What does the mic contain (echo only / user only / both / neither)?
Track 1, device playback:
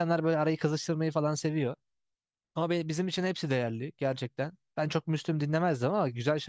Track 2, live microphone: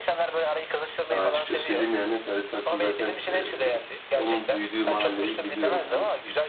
both